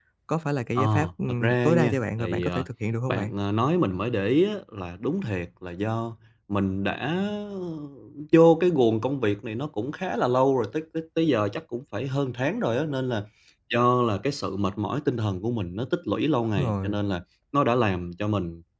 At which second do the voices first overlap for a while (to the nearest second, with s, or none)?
1 s